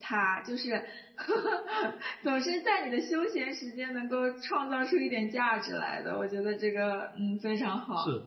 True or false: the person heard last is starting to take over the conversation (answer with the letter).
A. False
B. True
B